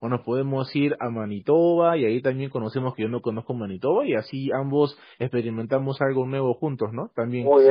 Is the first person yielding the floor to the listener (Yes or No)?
Yes